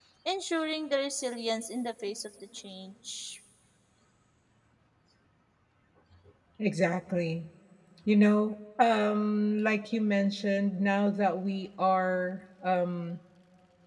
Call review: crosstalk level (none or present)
none